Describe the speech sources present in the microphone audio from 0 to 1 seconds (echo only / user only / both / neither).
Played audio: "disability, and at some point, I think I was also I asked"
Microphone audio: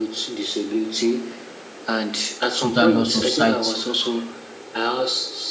echo only